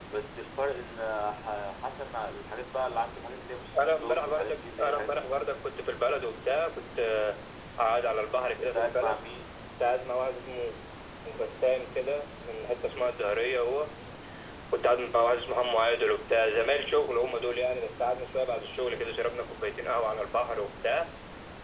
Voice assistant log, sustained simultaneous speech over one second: present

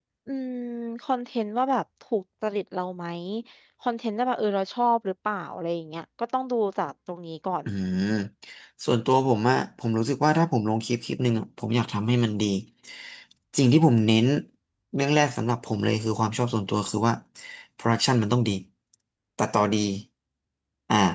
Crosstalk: none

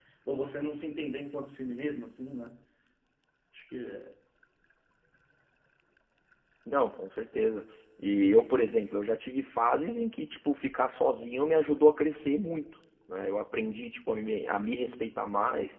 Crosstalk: none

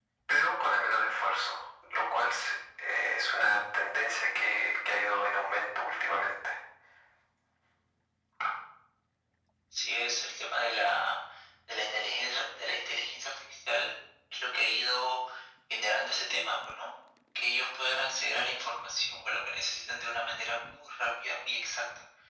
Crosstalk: none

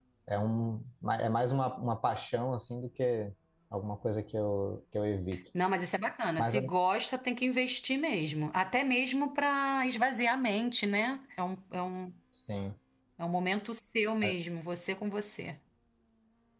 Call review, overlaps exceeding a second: none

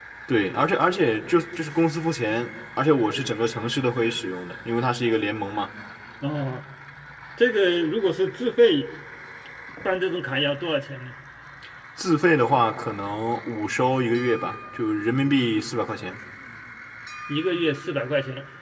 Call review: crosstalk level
none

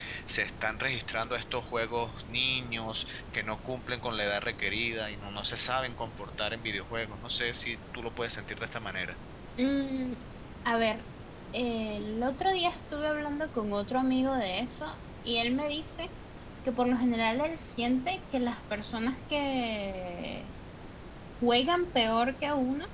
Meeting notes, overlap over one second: none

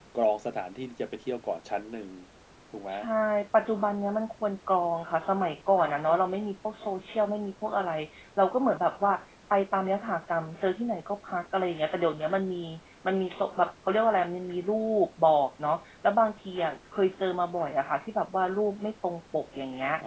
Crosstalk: none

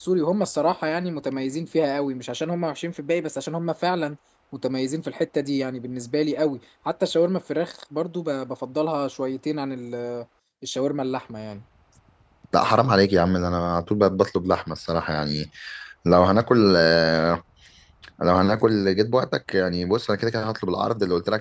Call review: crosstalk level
none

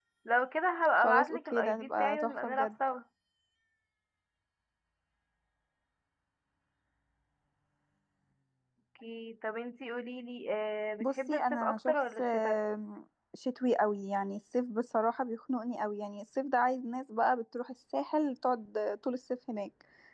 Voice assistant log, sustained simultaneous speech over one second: present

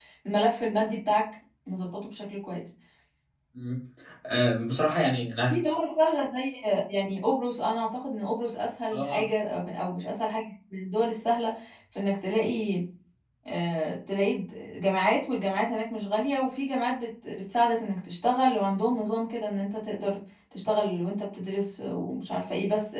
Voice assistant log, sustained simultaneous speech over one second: none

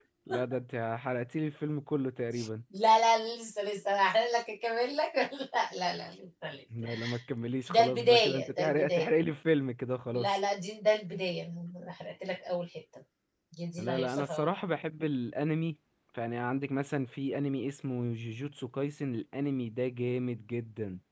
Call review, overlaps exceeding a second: present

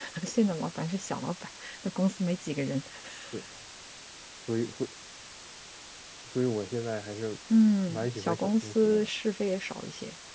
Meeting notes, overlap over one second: present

